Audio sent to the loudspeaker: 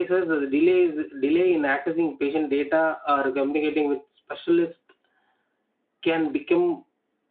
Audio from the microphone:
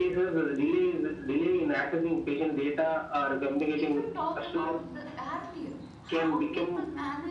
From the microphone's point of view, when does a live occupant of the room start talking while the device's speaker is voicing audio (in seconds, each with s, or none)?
3.7 s